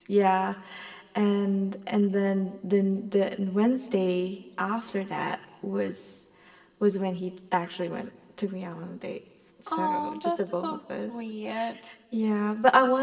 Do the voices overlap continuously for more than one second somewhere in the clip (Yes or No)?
Yes